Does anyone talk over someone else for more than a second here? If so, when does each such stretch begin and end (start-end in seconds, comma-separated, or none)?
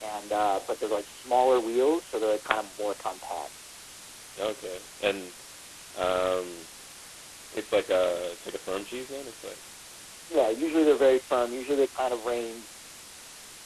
none